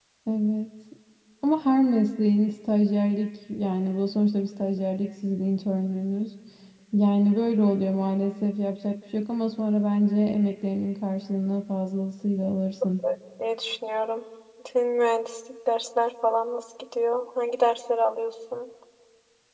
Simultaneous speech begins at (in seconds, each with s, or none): none